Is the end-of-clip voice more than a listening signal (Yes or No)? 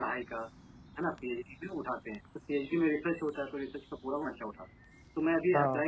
No